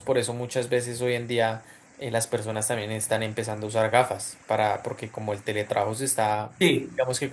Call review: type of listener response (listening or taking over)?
listening